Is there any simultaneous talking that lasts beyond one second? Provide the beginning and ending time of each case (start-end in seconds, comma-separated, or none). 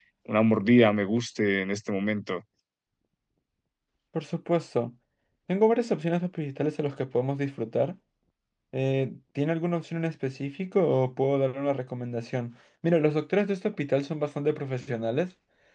none